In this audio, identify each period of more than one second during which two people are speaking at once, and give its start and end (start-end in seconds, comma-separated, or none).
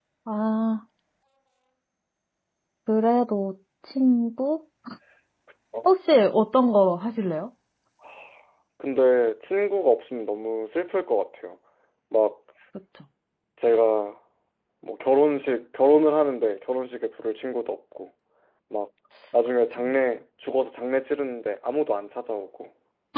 none